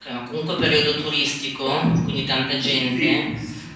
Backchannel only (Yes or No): No